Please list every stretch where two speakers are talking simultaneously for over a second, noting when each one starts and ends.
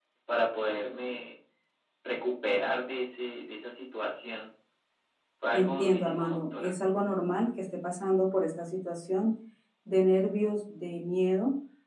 5.5-6.8

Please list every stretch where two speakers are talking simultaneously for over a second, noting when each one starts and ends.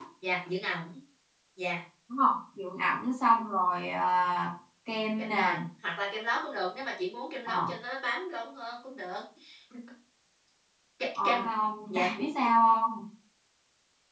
none

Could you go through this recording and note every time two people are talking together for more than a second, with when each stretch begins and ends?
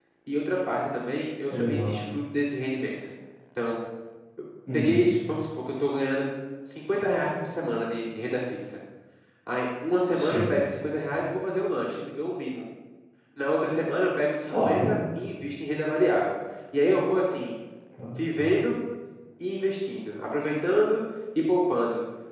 none

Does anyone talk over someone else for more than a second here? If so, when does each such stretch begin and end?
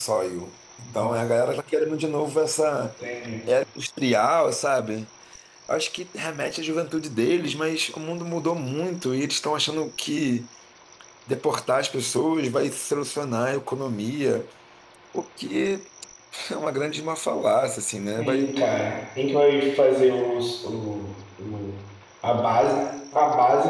none

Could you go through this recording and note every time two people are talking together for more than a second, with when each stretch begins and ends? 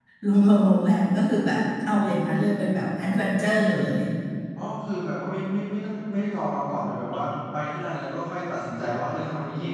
none

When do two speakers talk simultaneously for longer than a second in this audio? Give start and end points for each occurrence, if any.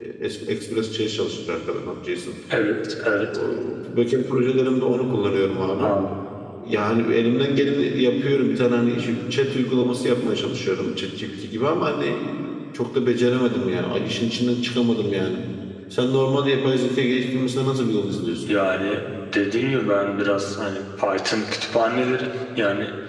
none

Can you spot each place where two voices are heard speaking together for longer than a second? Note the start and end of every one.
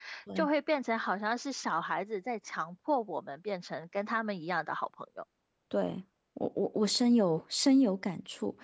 none

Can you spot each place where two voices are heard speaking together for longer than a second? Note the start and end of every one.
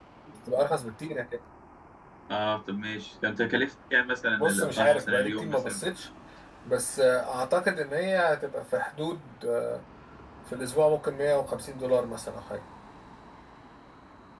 4.4-5.8

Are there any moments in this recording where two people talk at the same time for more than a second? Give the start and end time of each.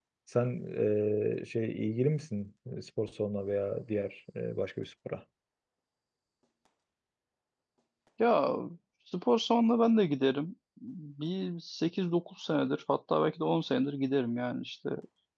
none

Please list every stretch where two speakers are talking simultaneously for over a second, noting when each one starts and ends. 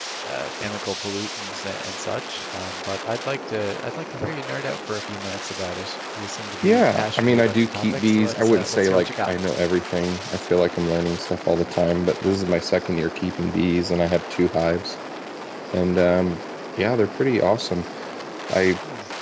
6.6-9.3

